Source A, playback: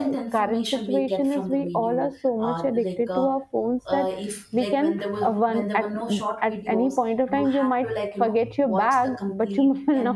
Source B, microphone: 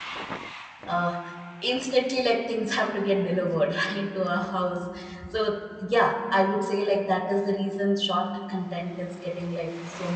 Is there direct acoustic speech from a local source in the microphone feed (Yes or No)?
Yes